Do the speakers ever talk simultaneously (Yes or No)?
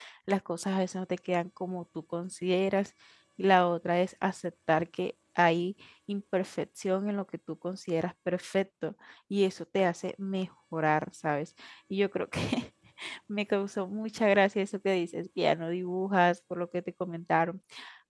No